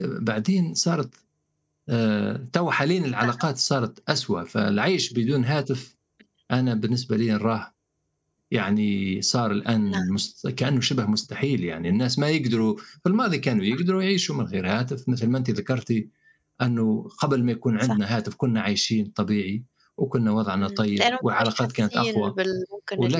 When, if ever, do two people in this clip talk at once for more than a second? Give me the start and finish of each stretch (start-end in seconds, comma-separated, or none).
20.6-22.3